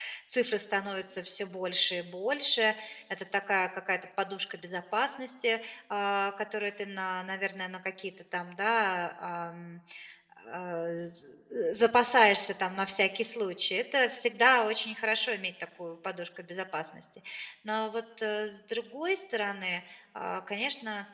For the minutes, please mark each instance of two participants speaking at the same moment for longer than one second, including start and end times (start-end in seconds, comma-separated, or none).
none